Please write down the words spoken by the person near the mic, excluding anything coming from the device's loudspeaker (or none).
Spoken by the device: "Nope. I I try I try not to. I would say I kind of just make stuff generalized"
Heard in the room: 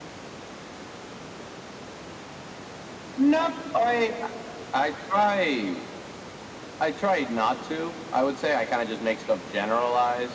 none